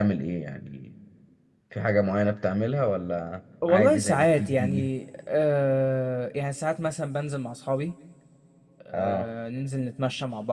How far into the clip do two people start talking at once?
3.7 s

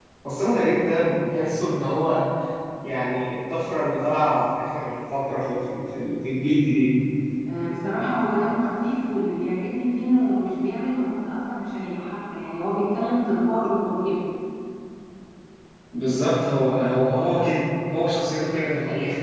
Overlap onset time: none

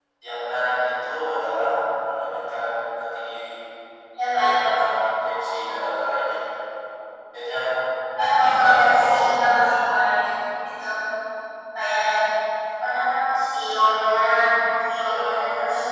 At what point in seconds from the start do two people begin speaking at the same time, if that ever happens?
8.5 s

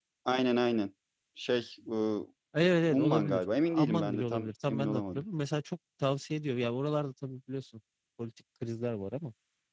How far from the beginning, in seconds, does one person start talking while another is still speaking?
2.9 s

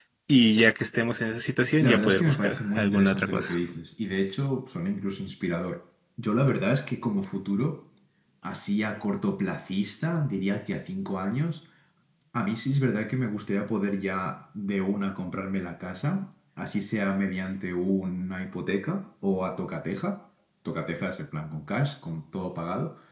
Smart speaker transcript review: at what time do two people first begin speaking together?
1.8 s

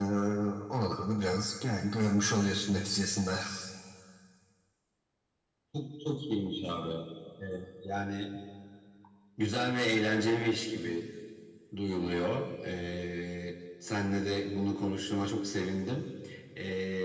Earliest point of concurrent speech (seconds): none

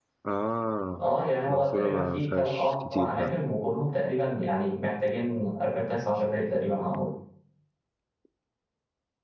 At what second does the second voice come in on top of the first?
1.5 s

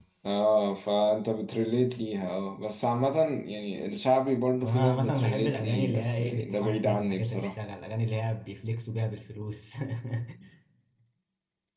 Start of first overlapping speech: 4.6 s

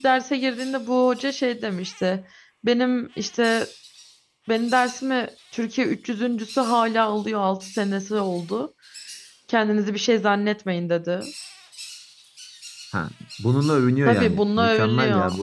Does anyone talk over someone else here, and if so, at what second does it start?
14.1 s

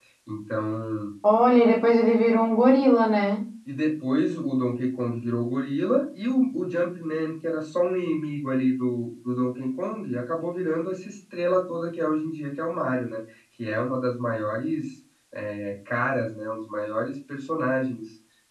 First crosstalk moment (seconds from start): none

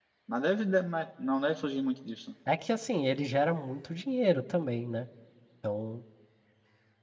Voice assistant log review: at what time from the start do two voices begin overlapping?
none

